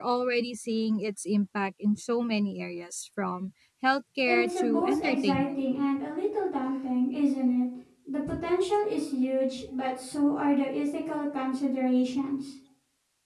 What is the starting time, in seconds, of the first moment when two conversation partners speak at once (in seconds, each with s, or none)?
4.2 s